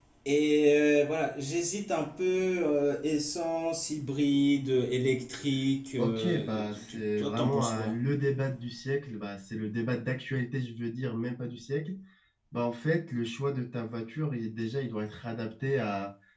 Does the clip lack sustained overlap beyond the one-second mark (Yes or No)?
No